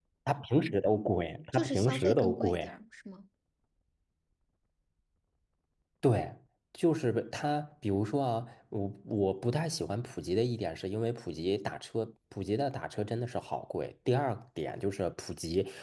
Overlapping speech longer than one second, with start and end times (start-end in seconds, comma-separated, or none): 1.5-2.8